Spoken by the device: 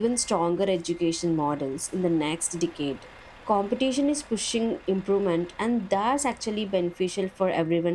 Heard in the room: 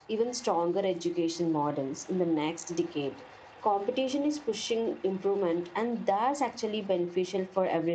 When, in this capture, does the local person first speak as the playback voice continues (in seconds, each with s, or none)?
none